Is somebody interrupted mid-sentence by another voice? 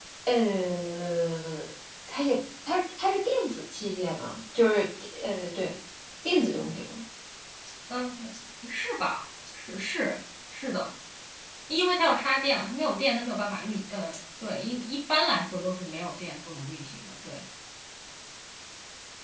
No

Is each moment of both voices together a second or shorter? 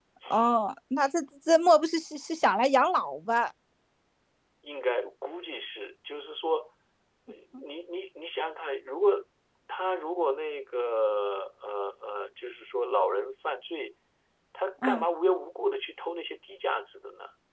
Yes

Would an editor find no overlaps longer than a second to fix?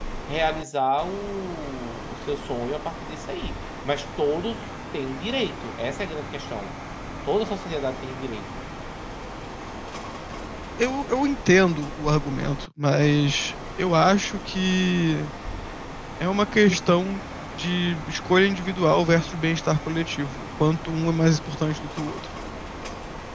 Yes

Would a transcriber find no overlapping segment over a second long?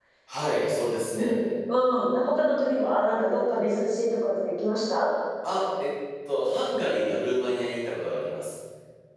Yes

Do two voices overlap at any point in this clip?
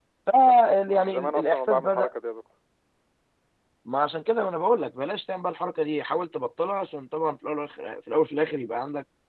Yes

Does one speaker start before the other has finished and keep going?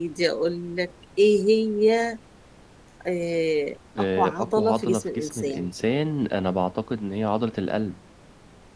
Yes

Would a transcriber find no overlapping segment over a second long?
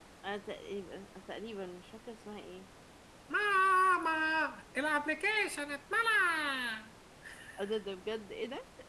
Yes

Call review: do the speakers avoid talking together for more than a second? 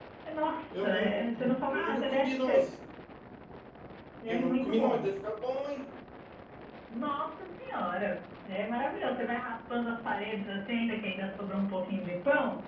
No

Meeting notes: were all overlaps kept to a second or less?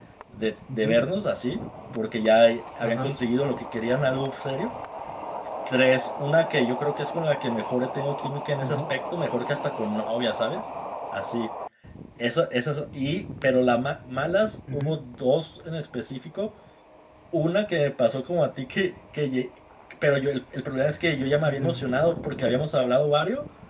Yes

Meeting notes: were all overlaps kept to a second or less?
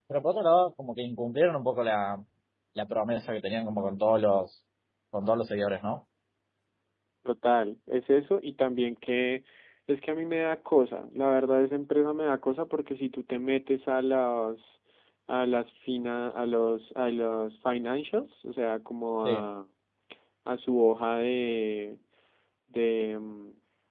Yes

